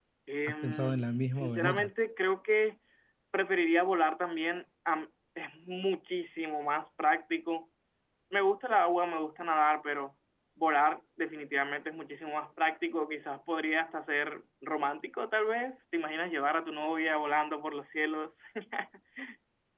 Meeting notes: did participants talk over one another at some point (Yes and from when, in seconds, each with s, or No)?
Yes, from 0.6 s